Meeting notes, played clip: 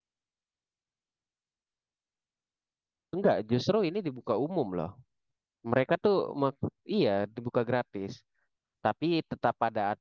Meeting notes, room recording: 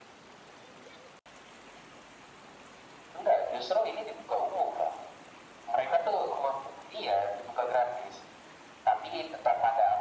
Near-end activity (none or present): none